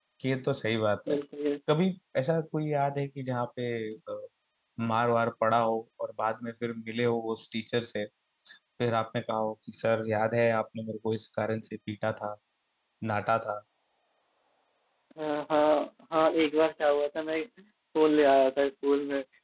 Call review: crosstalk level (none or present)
none